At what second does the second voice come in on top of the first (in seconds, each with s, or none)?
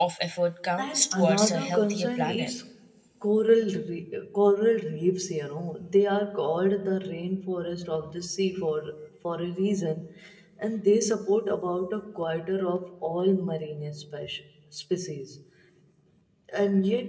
0.8 s